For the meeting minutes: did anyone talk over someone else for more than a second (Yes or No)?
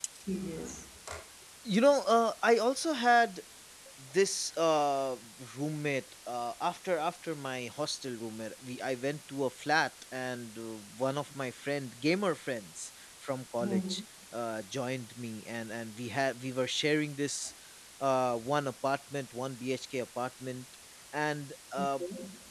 No